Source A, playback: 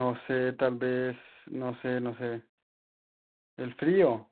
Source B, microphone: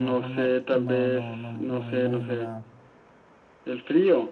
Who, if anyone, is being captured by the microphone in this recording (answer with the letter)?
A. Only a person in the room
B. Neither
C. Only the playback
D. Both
D